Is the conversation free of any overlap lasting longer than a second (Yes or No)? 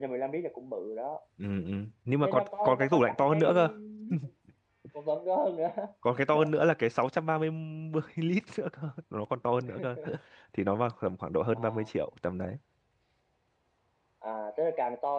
No